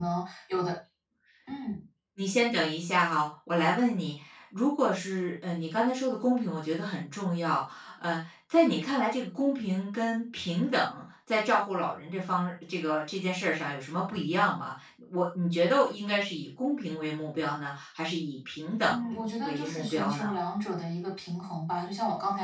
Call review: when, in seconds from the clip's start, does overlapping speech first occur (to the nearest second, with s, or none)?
19 s